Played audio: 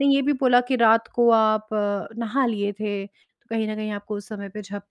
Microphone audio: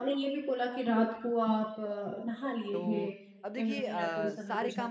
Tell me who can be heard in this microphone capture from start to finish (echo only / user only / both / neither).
both